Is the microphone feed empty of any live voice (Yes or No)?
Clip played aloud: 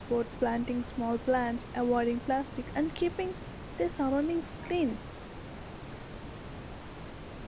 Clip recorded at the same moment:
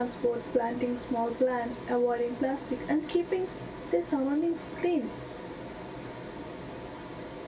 Yes